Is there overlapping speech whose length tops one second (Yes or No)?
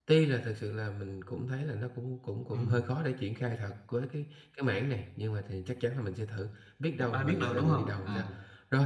Yes